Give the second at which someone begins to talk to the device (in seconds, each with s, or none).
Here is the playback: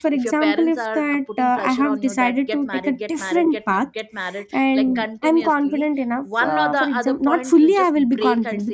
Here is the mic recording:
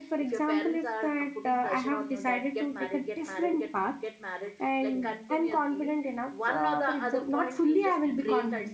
none